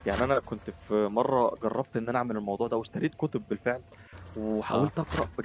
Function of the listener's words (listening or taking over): listening